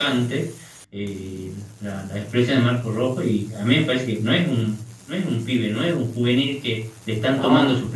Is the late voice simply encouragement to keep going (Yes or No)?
Yes